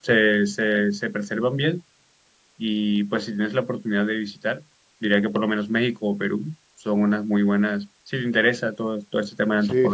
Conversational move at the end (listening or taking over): listening